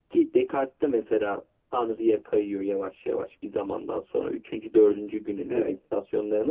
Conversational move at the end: listening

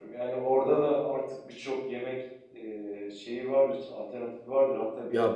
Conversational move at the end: listening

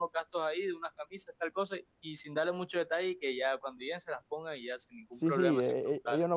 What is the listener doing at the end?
taking over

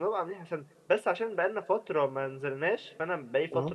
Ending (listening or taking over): listening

